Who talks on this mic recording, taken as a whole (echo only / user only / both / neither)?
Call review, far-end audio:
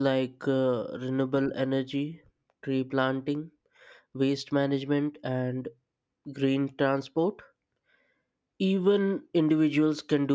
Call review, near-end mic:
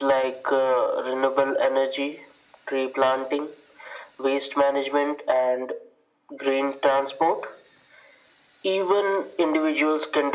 echo only